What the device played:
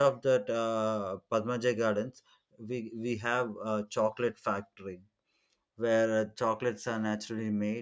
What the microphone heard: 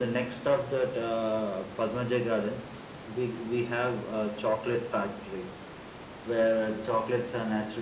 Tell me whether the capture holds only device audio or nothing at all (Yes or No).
Yes